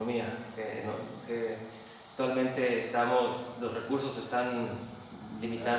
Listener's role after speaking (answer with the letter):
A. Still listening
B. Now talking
B